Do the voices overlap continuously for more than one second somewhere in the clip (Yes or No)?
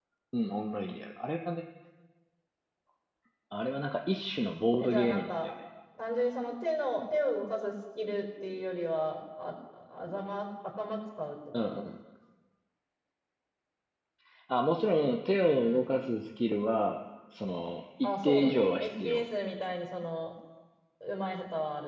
Yes